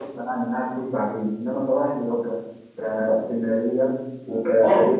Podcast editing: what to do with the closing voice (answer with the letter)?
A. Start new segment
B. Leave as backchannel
A